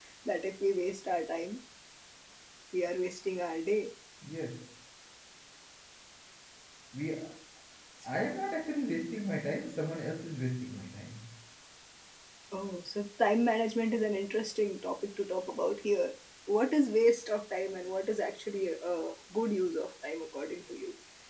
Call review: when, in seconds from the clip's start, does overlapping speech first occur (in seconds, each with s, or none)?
none